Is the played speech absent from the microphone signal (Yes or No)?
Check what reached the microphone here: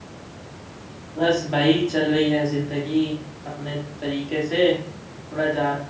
Yes